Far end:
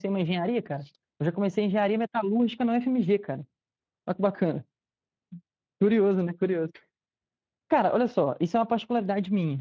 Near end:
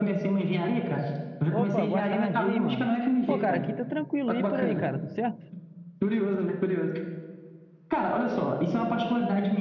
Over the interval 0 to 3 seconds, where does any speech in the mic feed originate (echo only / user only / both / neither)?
both